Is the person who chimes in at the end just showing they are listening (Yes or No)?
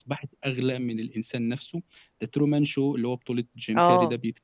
No